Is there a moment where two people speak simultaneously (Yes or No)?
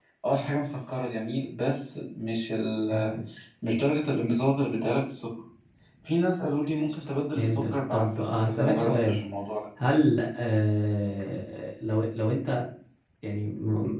Yes